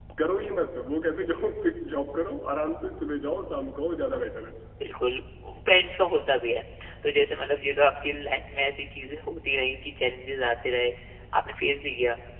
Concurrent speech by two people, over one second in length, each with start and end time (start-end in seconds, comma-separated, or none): none